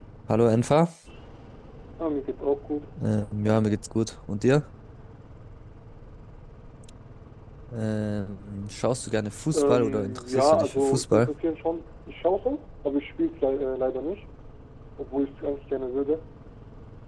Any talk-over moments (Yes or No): Yes